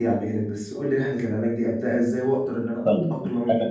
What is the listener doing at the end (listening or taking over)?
taking over